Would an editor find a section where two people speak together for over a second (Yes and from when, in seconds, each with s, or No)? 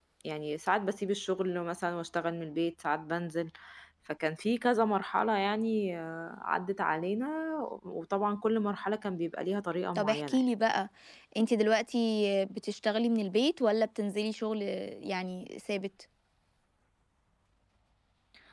No